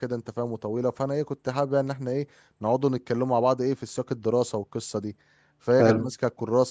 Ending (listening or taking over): listening